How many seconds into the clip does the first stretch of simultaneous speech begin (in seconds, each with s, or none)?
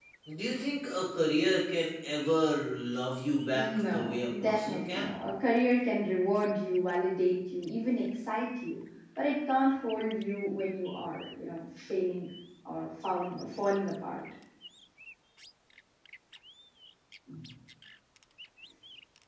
3.5 s